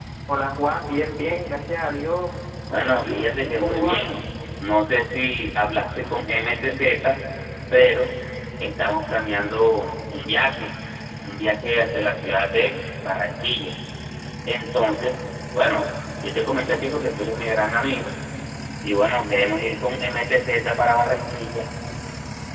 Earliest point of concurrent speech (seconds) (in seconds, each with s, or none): 2.8 s